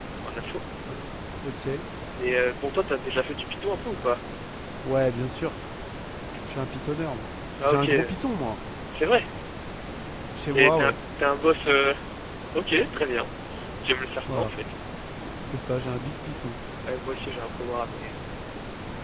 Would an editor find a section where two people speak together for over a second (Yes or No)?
No